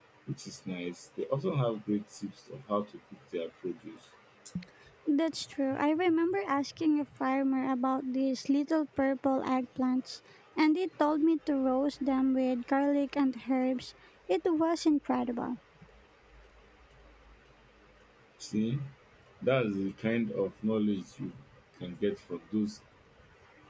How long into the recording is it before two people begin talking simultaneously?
none

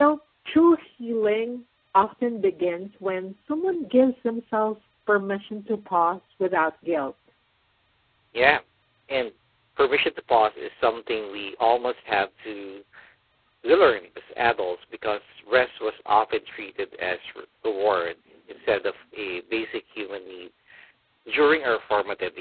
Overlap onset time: none

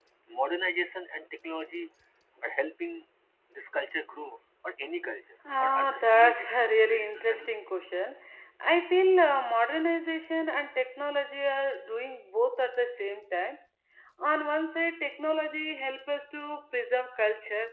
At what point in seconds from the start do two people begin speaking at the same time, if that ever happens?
5.5 s

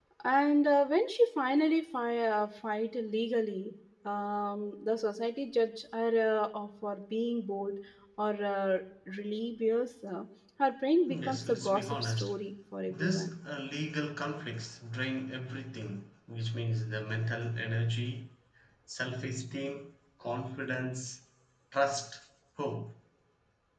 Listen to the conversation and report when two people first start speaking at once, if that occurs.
11.1 s

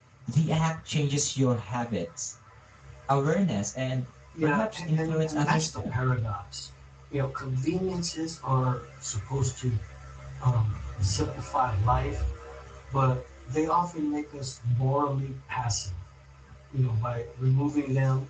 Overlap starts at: 4.3 s

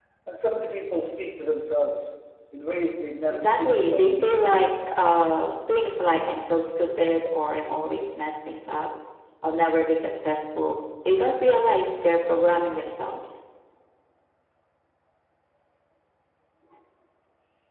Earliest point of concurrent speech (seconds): 3.3 s

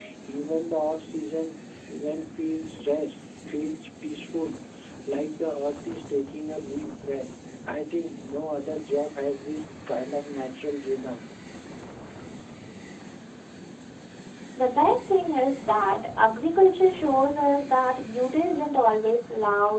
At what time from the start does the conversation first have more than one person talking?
none

